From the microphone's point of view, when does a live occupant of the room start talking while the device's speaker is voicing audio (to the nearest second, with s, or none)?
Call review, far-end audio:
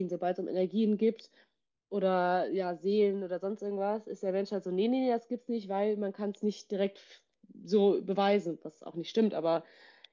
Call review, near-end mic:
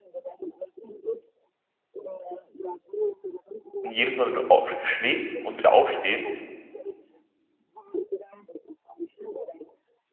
4 s